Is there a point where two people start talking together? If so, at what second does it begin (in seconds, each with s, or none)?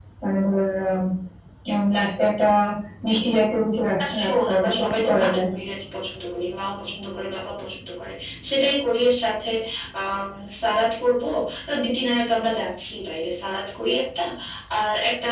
4.0 s